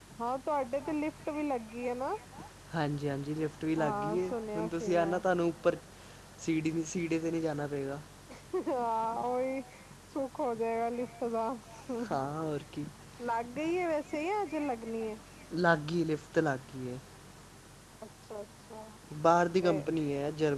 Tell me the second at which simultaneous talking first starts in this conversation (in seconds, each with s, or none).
3.8 s